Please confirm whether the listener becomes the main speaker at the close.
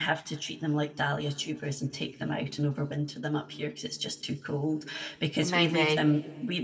No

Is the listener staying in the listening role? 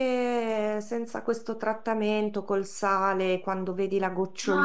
No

